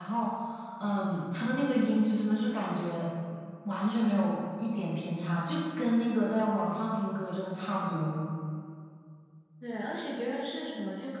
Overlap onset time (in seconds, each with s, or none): none